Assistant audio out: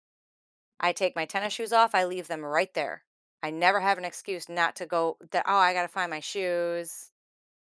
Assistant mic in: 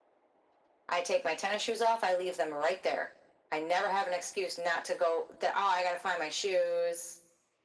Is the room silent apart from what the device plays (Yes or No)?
Yes